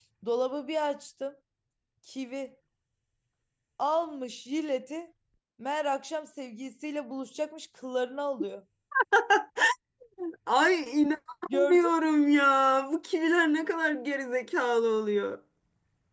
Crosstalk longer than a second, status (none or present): none